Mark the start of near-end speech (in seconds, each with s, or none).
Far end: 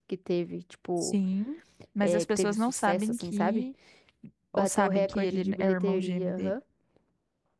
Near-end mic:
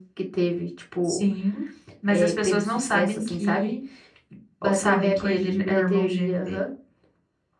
none